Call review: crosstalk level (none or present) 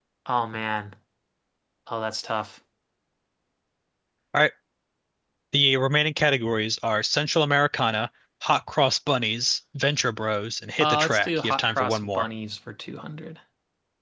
present